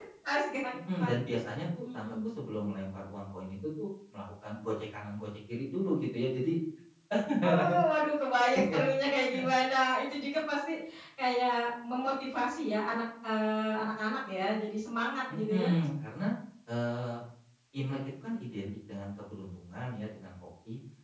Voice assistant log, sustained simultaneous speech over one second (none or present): none